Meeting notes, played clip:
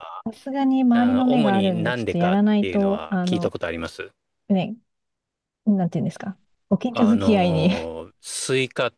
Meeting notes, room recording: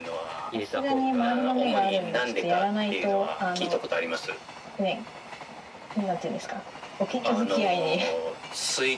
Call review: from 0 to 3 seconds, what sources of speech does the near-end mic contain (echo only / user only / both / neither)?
both